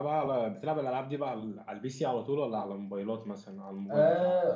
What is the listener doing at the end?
taking over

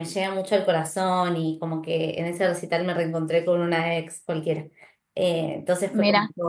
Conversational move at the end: listening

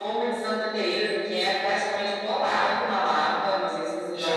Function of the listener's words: taking over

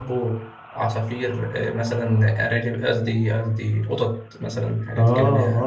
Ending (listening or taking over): taking over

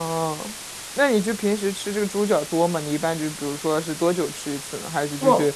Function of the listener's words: listening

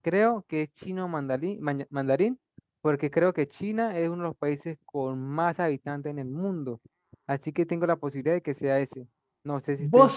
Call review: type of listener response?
taking over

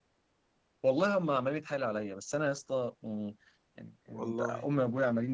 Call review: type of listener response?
listening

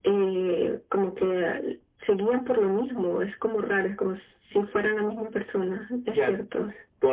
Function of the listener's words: taking over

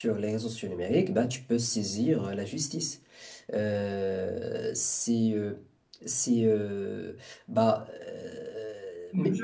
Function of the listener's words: taking over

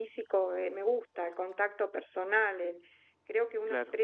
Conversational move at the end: listening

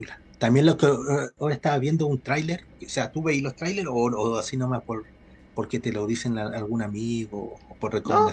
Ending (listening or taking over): taking over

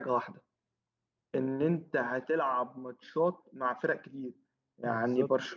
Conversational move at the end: listening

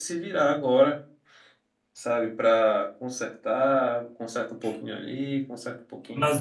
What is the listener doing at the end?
taking over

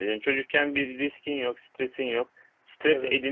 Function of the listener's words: listening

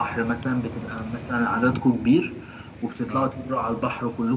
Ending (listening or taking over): listening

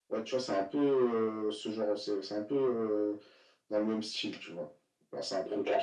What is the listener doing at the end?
listening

